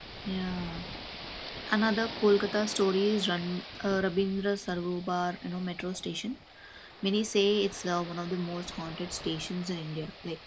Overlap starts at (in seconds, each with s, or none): none